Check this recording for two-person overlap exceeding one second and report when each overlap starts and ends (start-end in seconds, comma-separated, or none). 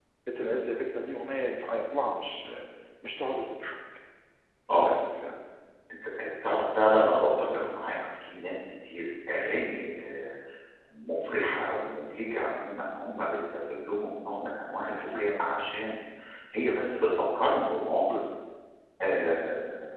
none